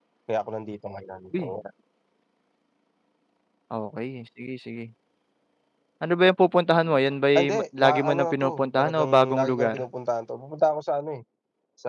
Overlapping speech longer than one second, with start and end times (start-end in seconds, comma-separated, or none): 7.4-9.8